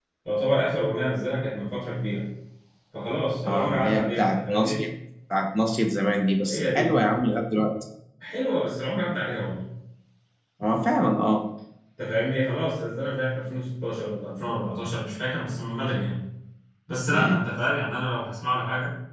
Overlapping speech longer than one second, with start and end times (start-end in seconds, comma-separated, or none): 3.5-4.8